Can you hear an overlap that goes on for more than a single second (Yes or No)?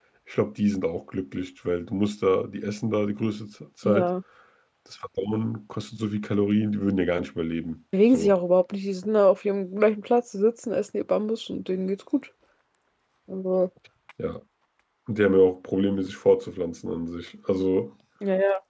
No